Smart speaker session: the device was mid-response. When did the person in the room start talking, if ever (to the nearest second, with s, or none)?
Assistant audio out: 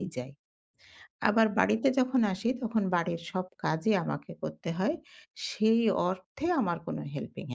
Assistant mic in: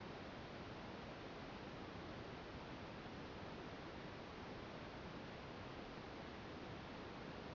none